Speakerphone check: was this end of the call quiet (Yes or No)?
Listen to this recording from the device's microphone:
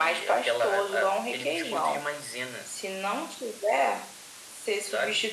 Yes